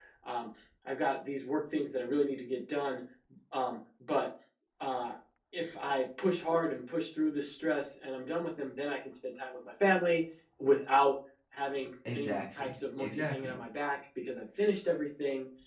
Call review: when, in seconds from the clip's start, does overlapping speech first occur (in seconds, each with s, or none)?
12.0 s